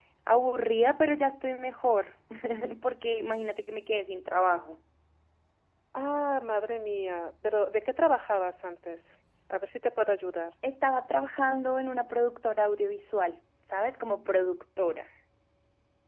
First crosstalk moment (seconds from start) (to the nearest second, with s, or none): none